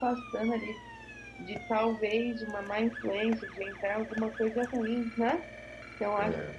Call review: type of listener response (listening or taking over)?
listening